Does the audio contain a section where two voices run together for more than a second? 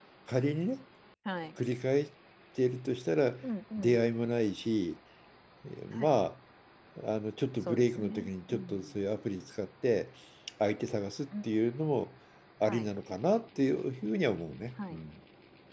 Yes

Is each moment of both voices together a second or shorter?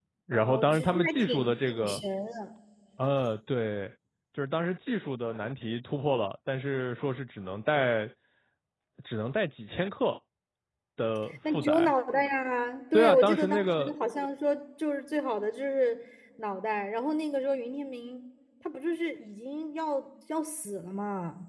No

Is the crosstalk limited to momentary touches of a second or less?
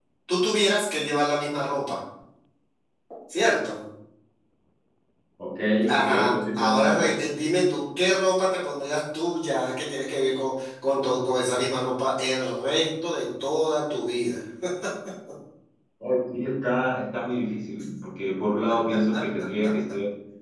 No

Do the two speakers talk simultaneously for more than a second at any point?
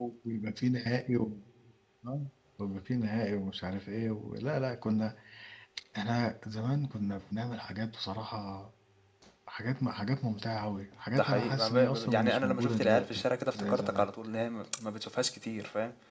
Yes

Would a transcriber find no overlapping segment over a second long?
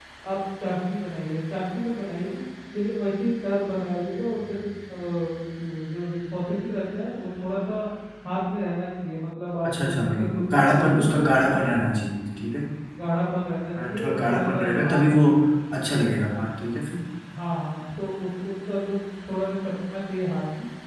No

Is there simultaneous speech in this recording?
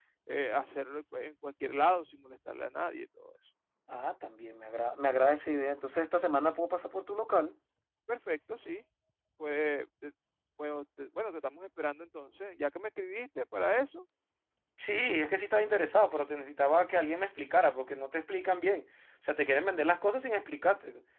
No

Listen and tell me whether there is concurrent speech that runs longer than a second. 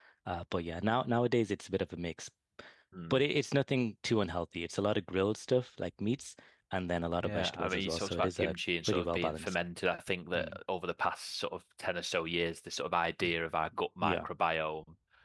Yes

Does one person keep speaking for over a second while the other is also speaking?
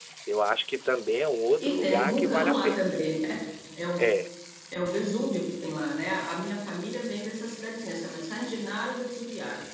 Yes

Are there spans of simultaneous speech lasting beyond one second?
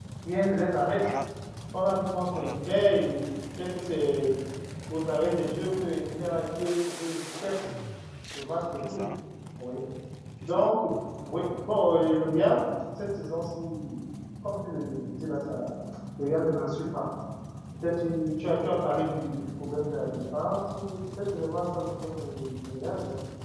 No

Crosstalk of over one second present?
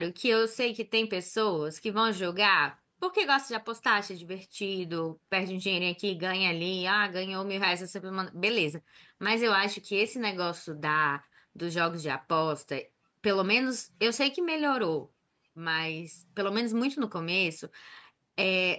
No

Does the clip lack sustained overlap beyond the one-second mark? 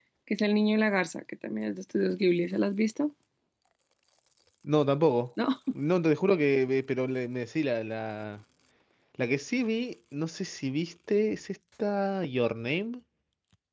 Yes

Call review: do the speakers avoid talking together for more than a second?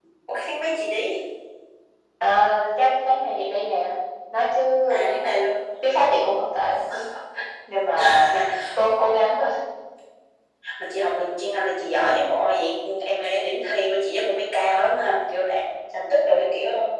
Yes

